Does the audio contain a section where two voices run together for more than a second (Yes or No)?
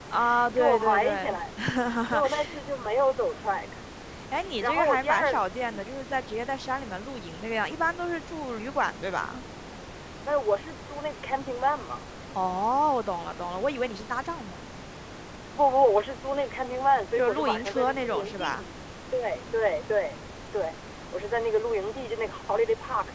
Yes